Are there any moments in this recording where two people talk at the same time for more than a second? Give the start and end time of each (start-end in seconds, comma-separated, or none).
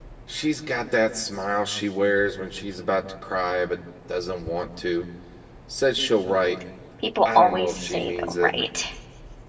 7.2-8.5